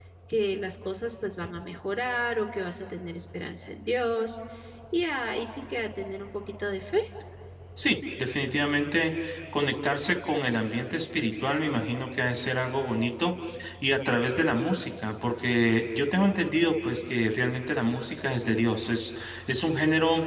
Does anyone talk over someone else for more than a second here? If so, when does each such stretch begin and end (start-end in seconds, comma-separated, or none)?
none